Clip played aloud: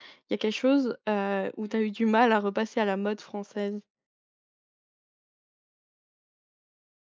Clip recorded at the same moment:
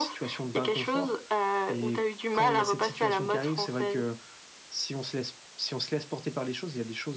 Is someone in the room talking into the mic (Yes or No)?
Yes